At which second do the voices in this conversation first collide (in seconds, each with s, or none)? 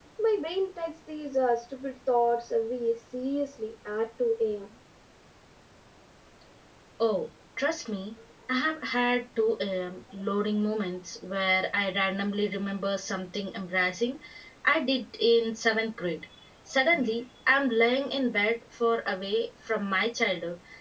none